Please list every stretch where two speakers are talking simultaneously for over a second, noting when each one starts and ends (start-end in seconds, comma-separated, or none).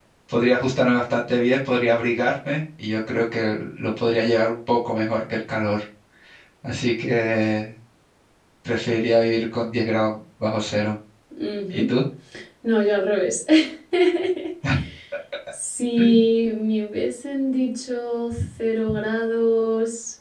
none